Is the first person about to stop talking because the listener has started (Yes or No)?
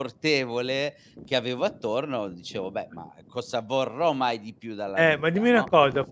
Yes